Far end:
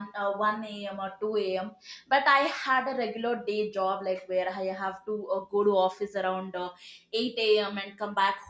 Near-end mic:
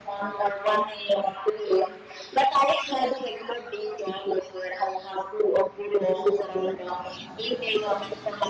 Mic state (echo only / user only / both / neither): echo only